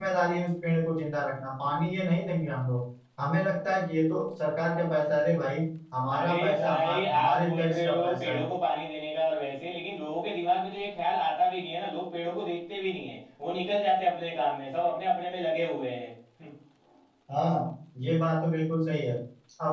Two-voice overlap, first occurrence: 6 s

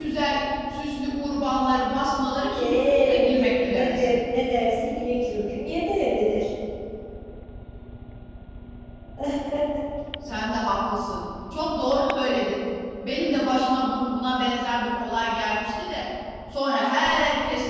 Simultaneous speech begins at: 3 s

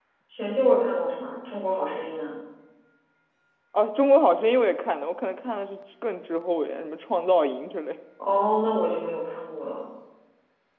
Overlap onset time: none

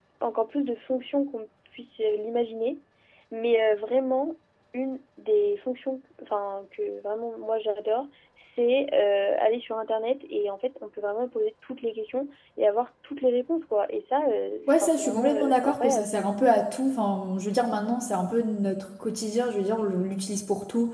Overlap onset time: 15 s

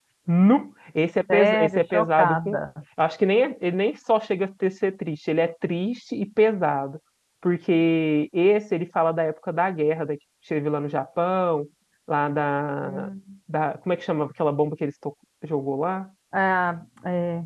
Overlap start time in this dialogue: 1 s

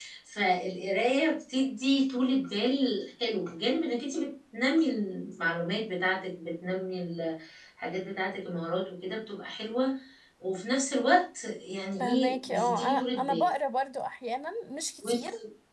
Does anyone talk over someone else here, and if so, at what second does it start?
12 s

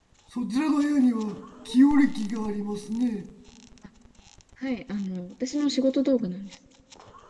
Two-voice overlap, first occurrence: none

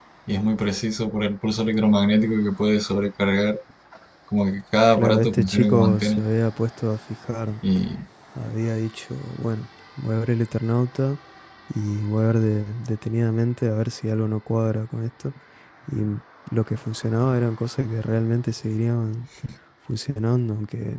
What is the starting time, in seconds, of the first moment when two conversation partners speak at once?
5 s

